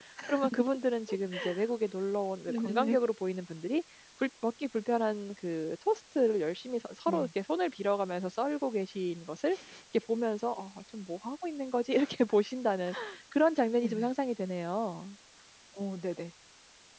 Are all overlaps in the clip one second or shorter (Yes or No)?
Yes